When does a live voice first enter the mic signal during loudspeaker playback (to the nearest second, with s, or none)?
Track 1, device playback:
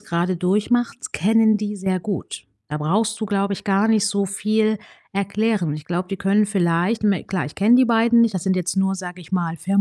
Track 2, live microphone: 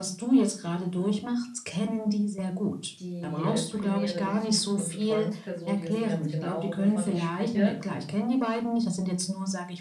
3 s